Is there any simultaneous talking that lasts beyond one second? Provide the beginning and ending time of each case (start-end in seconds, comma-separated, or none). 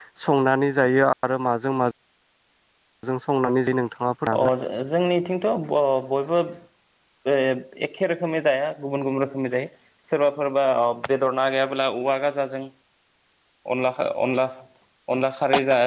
none